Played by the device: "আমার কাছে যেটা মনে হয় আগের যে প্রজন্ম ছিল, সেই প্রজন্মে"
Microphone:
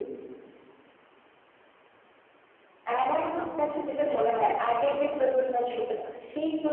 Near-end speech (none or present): present